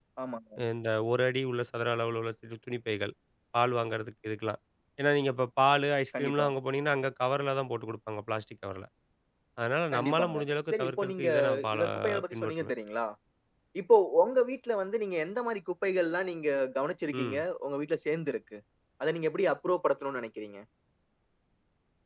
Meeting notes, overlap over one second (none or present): present